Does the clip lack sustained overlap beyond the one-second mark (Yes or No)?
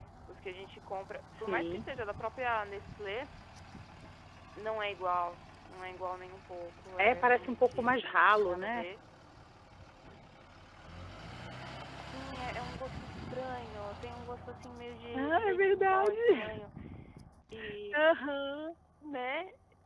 No